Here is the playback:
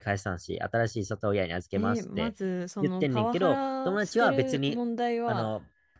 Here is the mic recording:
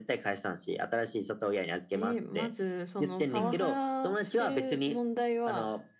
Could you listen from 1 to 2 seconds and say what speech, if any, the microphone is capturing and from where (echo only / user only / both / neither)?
echo only